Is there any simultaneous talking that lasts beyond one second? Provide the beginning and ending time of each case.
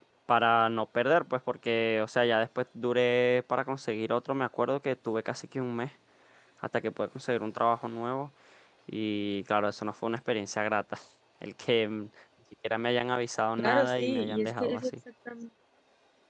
13.6-14.9

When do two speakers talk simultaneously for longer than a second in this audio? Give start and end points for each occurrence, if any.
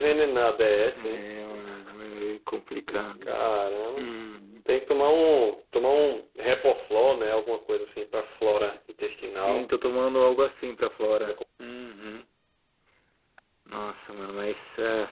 none

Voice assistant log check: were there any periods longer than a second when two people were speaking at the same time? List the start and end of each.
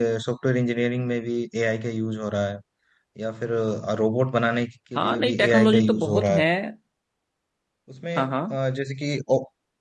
5.0-6.4

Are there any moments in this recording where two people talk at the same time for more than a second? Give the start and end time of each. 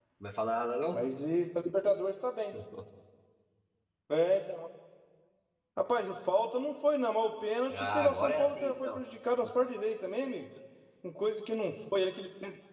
7.7-9.0

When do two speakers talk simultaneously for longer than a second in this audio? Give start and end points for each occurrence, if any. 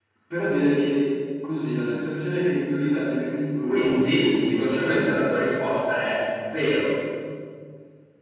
3.6-5.1

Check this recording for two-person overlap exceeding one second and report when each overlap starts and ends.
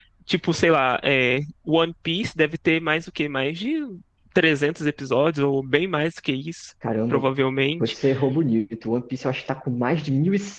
none

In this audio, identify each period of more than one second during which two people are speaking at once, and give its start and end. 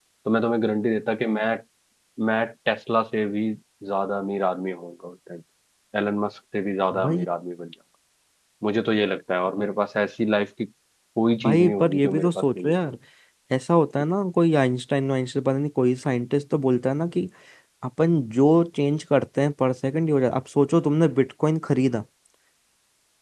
11.4-12.7

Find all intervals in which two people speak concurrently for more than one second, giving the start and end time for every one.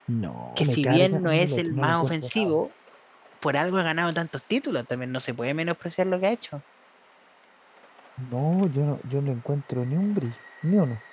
0.6-2.6

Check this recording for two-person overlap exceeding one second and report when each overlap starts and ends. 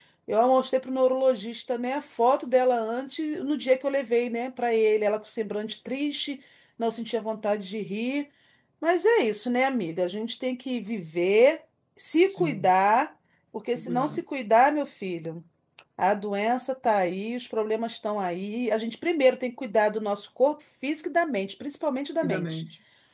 none

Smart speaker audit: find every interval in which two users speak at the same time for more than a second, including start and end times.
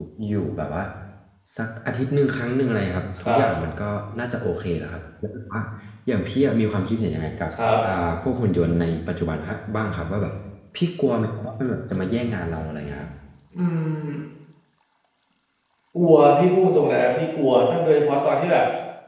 none

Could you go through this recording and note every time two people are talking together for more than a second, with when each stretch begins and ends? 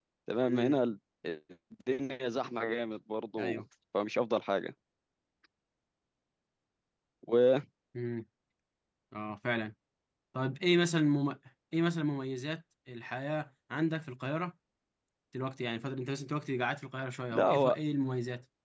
none

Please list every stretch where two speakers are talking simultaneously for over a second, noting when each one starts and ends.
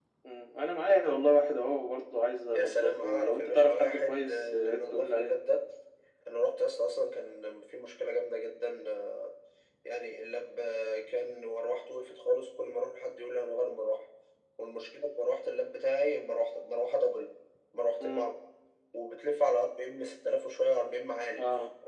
2.5-5.3

